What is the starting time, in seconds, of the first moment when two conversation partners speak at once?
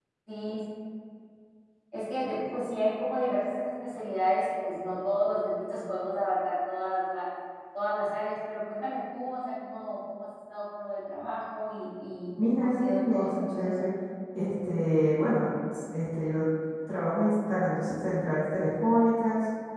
12.4 s

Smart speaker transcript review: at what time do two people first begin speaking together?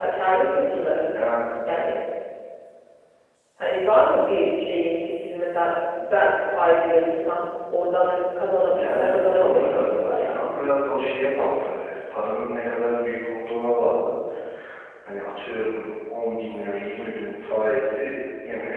8.7 s

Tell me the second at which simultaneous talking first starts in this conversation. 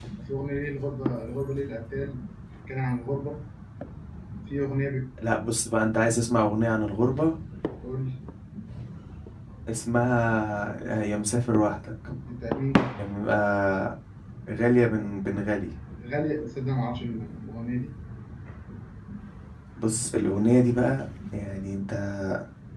none

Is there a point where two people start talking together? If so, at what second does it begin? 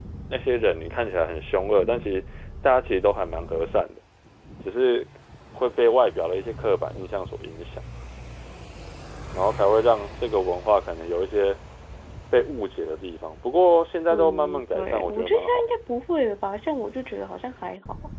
14.1 s

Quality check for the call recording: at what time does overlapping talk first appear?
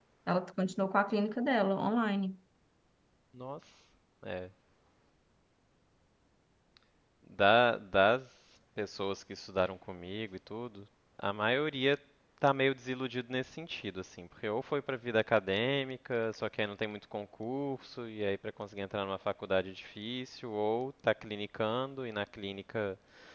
none

